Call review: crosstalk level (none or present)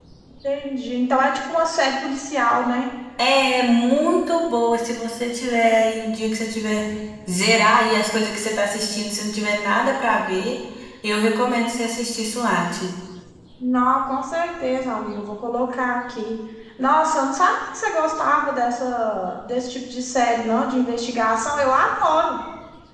none